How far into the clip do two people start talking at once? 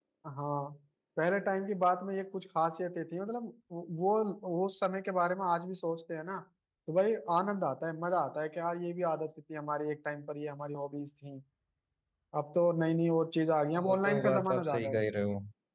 14 s

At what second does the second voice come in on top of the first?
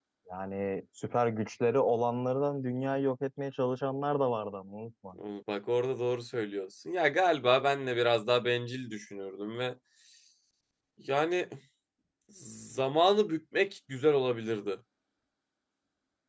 none

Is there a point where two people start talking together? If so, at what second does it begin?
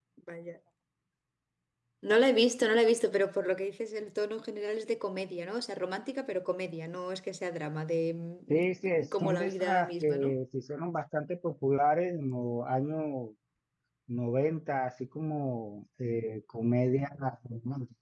8 s

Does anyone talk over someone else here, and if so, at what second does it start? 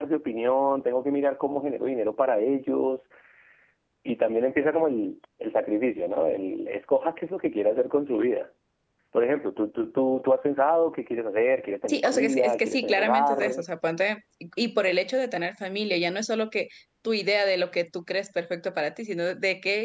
12 s

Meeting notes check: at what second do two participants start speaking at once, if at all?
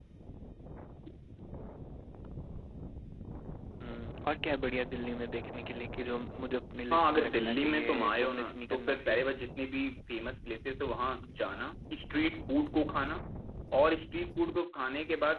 7 s

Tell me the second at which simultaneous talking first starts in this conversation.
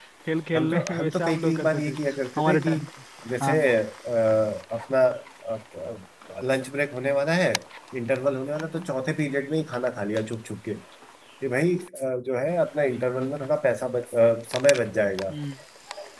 1 s

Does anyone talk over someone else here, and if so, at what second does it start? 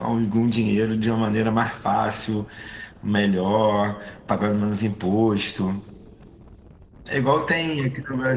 none

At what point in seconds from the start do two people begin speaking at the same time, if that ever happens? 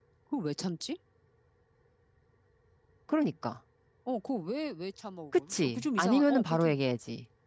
5 s

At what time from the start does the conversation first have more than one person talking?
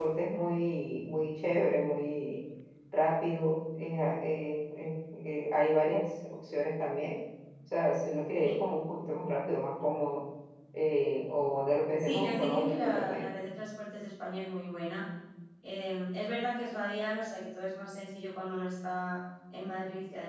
12 s

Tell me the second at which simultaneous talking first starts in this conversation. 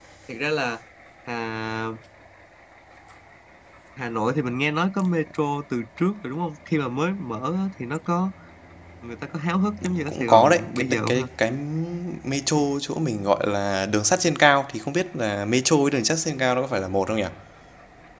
10 s

